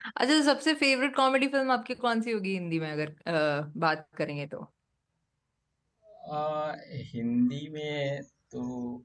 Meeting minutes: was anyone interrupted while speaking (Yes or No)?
No